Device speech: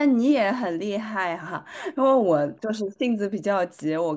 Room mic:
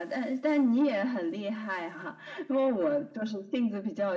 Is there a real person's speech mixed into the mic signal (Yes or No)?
No